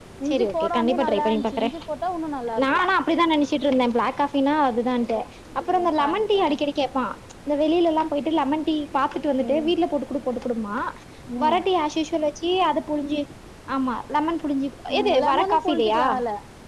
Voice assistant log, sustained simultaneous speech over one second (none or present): present